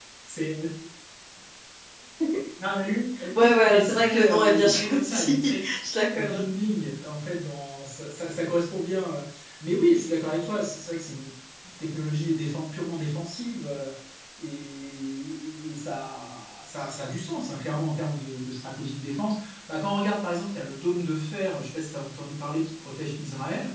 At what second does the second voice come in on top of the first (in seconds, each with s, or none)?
3.4 s